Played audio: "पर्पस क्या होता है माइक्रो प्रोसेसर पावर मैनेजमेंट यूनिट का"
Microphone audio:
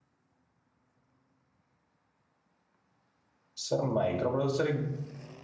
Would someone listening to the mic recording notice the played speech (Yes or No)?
No